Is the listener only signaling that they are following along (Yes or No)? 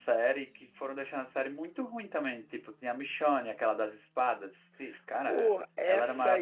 No